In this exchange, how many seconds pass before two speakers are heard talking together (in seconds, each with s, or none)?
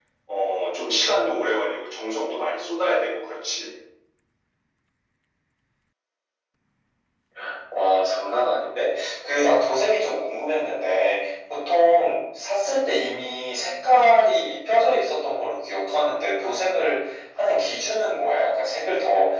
none